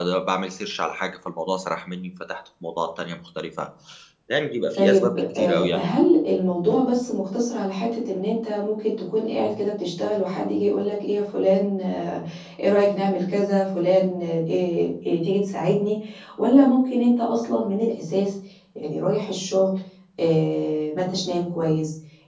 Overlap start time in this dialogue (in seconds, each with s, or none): 4.8 s